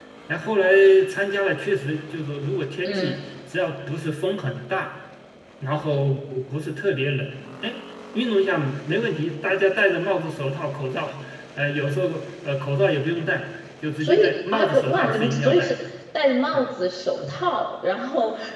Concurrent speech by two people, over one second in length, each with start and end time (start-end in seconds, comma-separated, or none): 14.0-15.8